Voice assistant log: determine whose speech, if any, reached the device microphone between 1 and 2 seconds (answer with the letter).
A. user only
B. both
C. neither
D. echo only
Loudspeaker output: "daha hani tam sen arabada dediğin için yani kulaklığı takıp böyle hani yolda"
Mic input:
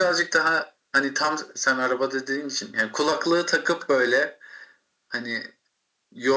D